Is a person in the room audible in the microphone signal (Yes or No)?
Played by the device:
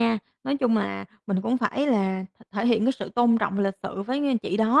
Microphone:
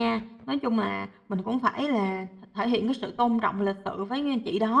No